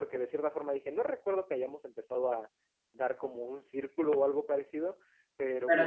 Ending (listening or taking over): listening